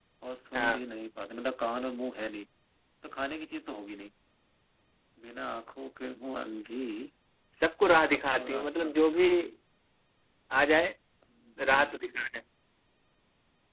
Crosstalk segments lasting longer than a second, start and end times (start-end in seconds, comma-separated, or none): 7.8-9.3